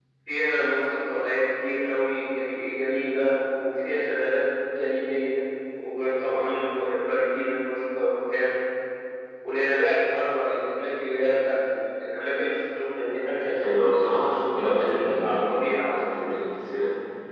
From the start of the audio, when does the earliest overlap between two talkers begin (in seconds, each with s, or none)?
13.4 s